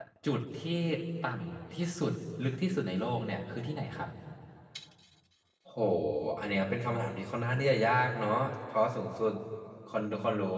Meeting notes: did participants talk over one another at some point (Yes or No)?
No